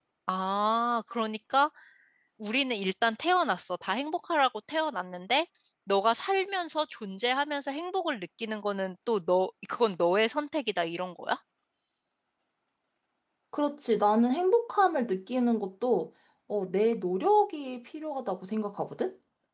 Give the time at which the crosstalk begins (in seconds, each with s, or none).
none